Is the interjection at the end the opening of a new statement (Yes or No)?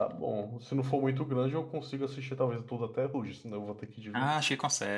Yes